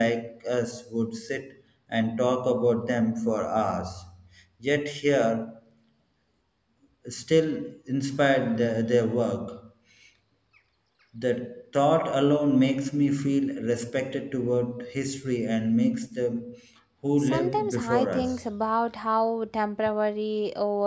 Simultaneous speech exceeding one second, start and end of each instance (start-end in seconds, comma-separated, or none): 17.2-18.4